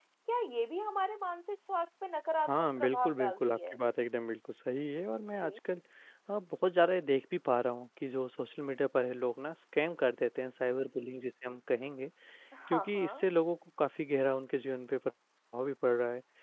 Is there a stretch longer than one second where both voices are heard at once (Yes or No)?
Yes